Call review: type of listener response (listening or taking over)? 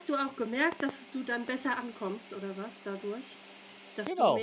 taking over